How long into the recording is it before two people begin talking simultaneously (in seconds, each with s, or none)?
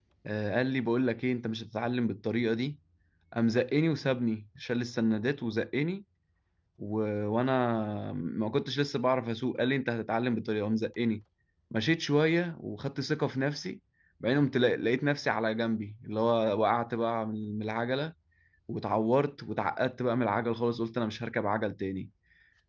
none